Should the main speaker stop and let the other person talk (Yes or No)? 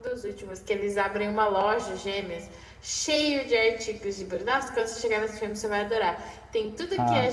No